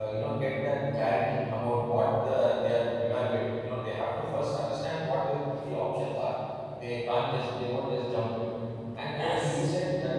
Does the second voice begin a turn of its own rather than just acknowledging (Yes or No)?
No